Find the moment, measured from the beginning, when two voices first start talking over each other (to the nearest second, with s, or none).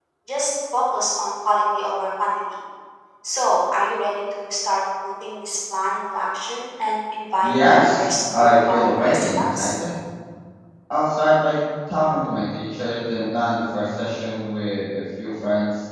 7 s